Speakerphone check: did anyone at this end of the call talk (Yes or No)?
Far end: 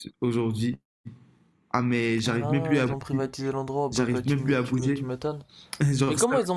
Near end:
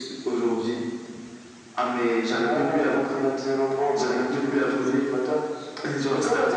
No